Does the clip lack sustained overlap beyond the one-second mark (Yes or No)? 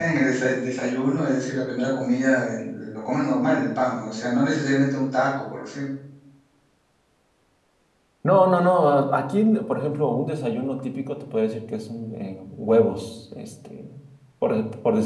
Yes